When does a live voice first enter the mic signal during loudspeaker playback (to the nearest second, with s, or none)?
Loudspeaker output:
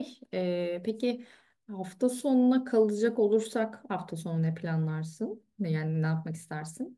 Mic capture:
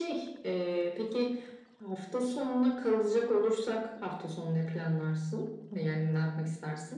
none